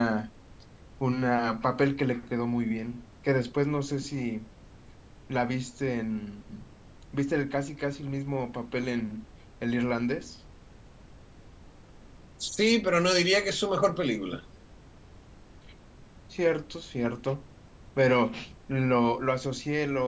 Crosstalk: none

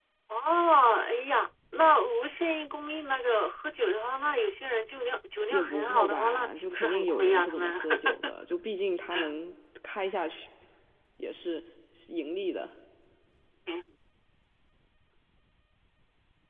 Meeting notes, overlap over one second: present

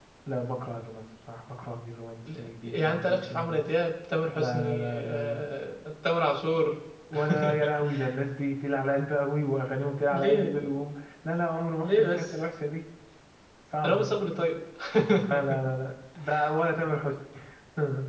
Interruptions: present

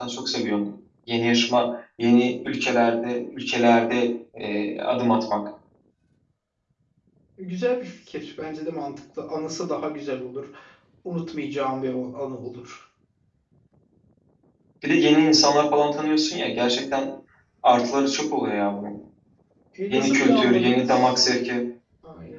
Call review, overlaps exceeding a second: present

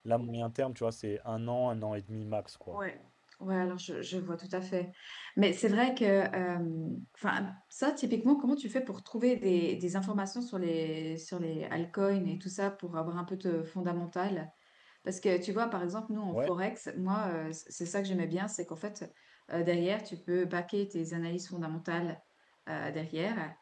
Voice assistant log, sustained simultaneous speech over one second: none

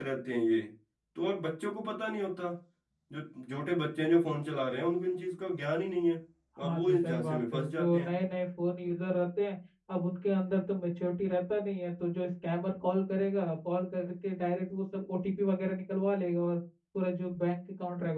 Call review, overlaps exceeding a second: present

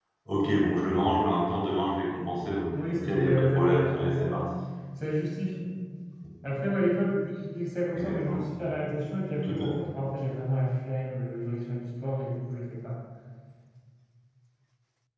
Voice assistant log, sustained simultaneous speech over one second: present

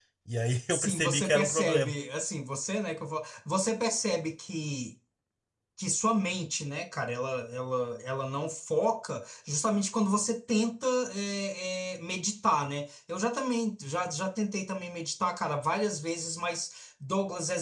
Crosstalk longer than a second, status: present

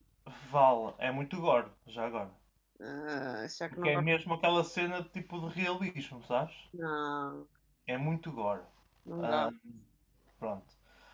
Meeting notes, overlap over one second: none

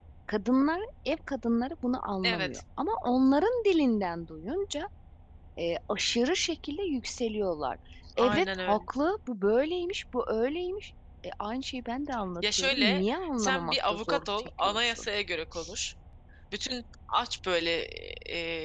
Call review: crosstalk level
present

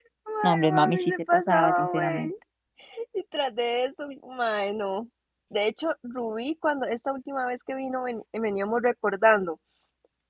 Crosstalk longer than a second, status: present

